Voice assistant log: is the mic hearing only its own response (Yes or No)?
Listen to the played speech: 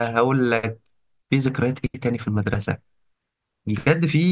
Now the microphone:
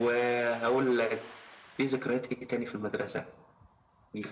Yes